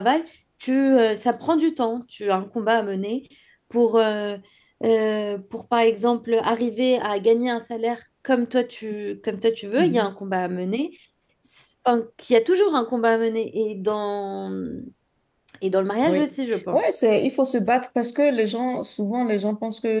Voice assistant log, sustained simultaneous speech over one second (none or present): none